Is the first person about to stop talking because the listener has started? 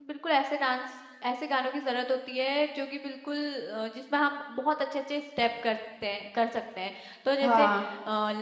No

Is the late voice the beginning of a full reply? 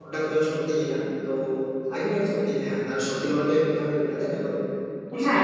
Yes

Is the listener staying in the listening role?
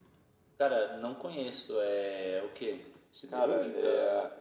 No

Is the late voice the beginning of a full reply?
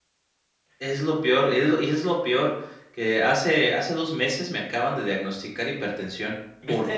Yes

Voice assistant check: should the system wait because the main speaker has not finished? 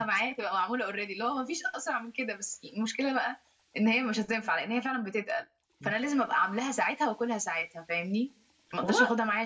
Yes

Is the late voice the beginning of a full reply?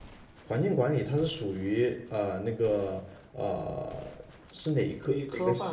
Yes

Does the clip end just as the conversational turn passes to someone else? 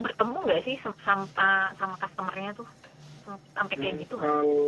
Yes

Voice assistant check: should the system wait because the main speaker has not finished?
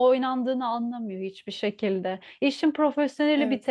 Yes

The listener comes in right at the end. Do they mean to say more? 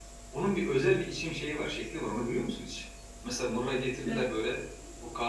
No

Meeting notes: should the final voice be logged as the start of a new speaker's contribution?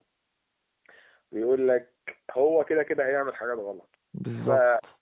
No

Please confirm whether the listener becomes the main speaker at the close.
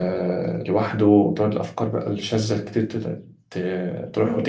Yes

